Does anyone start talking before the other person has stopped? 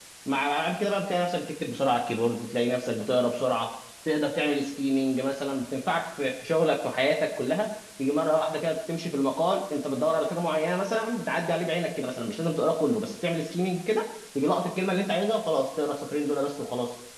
No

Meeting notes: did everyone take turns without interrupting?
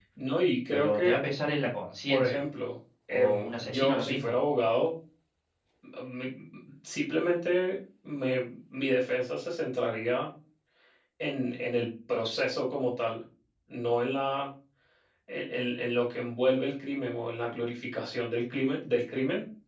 No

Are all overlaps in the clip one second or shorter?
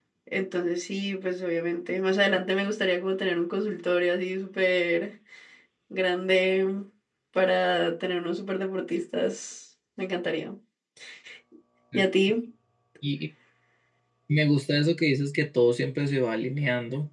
Yes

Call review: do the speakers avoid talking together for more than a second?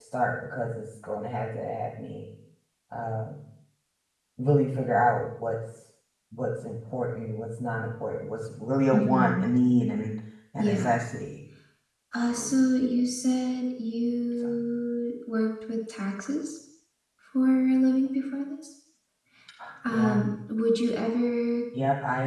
Yes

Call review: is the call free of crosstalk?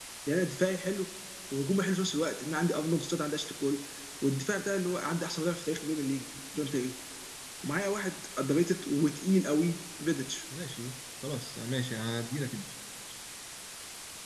Yes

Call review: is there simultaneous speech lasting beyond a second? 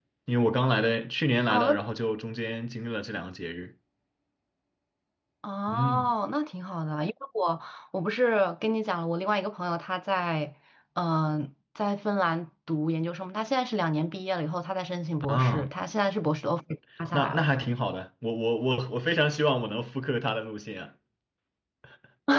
No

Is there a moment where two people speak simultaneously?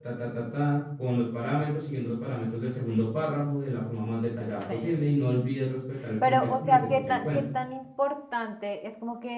Yes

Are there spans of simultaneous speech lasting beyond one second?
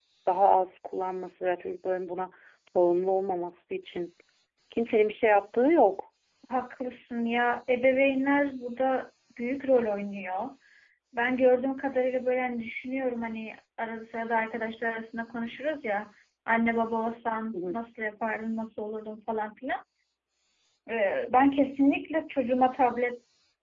No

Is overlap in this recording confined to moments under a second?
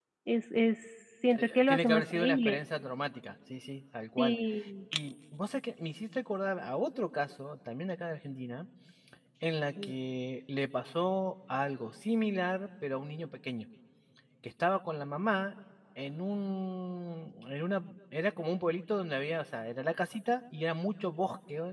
No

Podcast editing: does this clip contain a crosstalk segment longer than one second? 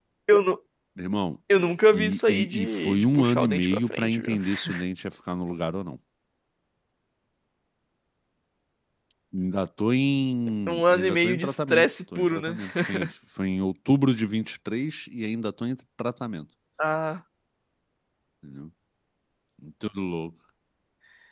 Yes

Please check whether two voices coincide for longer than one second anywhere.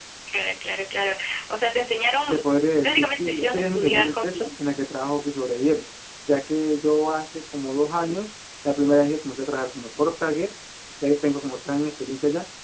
Yes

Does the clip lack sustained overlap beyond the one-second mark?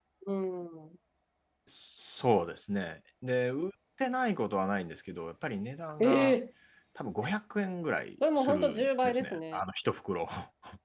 No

